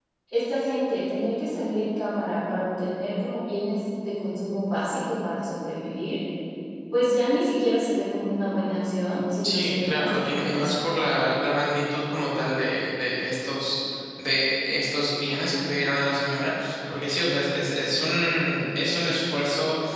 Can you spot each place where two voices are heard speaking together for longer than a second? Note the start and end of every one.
9.4-10.8

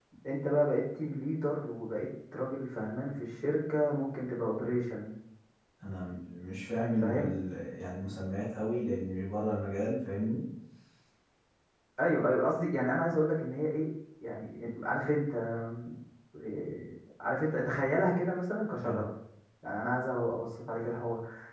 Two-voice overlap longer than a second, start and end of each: none

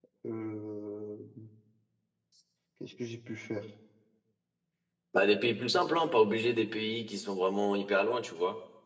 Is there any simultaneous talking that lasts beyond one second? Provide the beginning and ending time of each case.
none

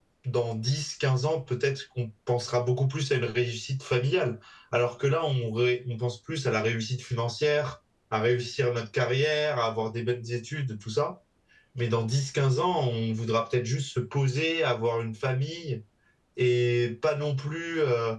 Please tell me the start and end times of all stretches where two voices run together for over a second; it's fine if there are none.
none

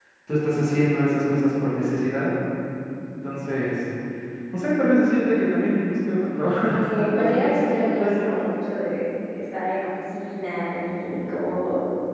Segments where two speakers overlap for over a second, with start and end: 6.7-8.4

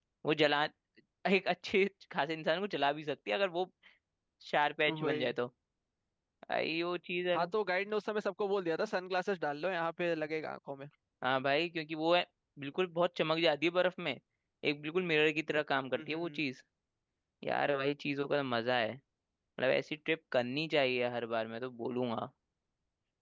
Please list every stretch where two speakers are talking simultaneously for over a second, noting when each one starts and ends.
none

